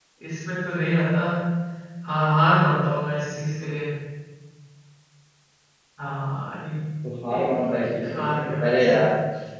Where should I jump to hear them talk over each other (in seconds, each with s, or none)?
7.3 s